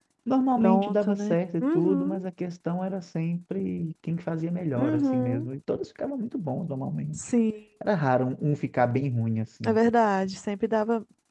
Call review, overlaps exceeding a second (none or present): present